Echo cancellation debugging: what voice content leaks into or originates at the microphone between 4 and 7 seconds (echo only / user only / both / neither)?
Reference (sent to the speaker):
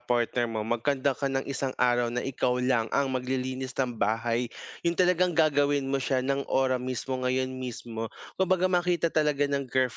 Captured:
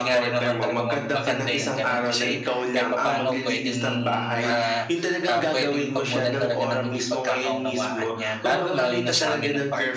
both